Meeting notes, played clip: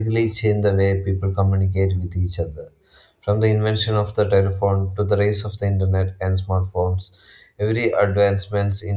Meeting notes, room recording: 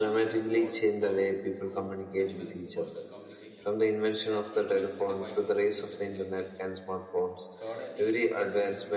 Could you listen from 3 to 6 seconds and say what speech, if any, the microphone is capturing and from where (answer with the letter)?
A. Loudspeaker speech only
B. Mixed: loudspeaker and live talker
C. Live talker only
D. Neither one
B